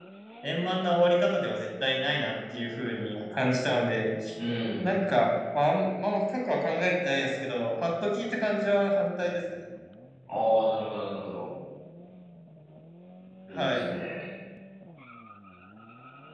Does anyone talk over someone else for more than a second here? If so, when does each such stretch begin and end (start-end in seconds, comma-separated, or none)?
none